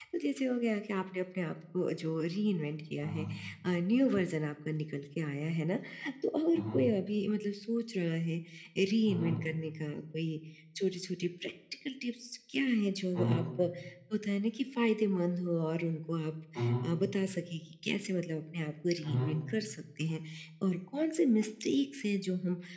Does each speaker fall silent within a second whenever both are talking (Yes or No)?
Yes